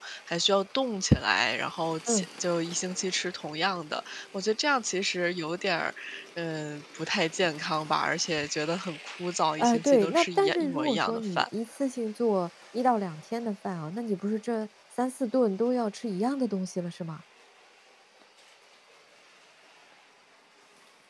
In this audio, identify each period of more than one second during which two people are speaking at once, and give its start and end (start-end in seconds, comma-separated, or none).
9.6-11.4